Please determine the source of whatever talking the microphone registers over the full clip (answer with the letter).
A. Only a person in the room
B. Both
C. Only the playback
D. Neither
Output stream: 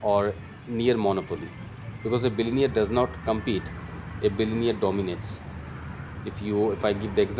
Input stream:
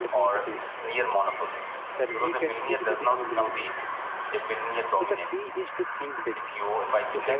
B